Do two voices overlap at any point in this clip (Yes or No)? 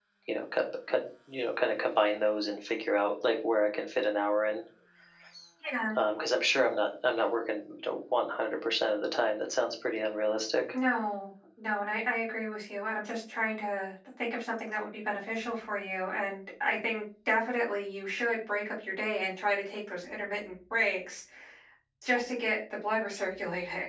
No